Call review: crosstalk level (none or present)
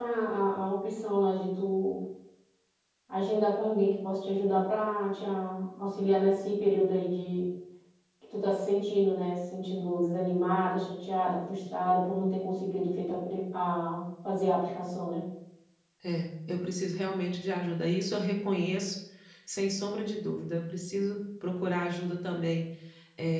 none